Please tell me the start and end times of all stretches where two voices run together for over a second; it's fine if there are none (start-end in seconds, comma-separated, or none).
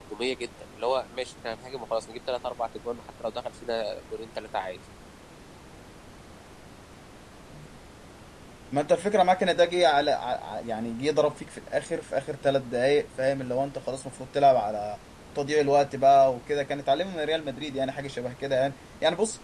none